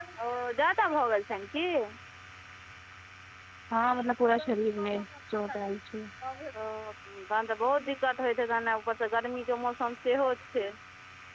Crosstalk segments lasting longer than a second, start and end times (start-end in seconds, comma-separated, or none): none